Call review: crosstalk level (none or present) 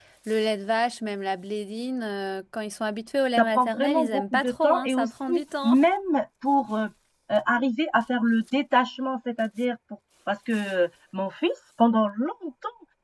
present